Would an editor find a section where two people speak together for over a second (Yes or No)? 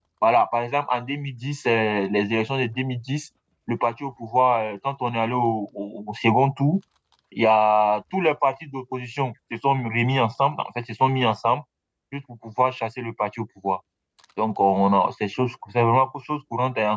No